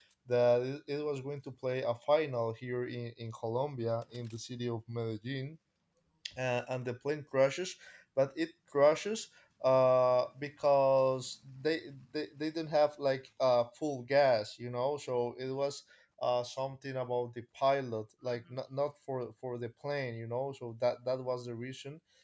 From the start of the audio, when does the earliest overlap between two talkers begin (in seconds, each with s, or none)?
none